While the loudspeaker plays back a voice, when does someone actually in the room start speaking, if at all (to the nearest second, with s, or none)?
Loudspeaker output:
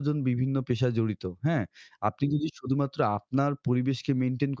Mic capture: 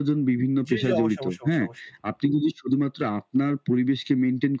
1 s